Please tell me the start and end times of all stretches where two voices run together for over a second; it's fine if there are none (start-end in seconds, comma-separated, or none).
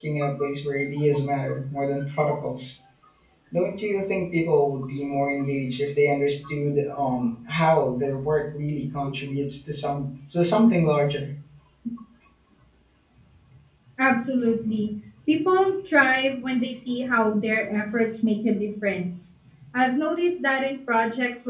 none